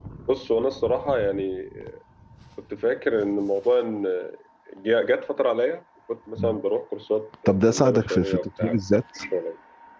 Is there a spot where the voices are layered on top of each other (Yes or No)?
Yes